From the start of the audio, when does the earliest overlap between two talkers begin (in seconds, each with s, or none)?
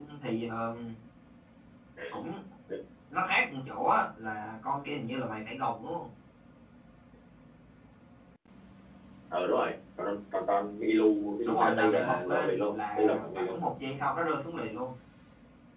11.4 s